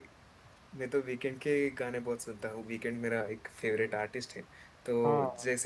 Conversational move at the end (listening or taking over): listening